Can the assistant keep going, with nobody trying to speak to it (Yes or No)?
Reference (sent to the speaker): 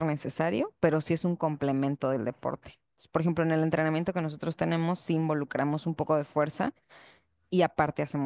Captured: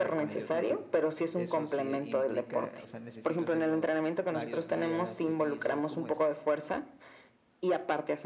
No